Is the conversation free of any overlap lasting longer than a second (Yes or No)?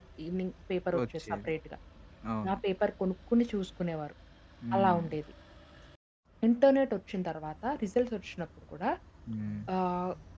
Yes